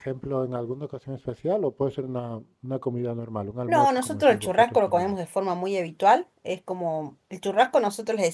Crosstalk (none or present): present